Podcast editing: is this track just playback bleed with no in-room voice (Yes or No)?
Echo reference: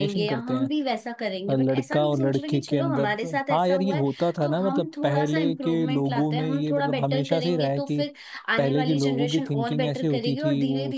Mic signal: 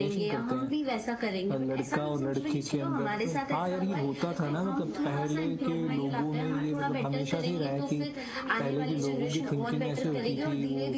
No